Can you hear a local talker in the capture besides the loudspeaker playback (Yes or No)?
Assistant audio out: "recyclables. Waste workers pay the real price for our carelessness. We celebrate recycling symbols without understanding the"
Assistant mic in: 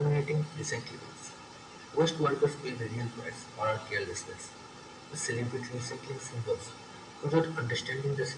No